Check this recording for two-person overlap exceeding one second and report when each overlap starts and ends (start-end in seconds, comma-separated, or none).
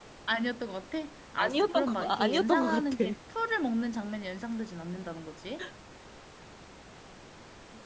1.4-3.0